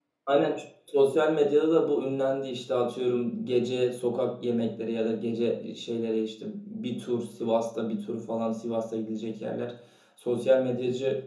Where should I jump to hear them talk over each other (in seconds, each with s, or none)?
none